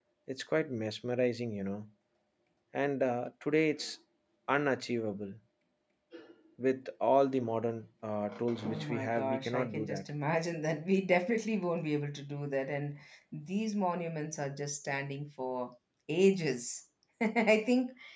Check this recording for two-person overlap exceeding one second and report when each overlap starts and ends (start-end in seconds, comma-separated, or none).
8.7-10.1